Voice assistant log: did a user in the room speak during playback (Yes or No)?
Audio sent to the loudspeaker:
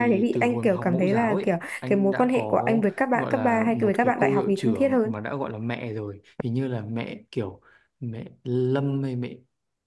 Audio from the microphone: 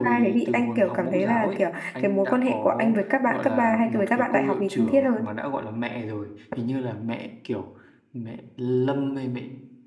No